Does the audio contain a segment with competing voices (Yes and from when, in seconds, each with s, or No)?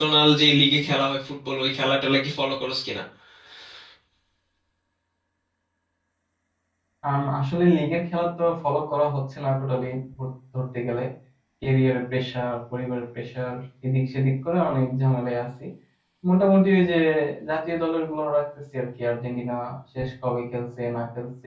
No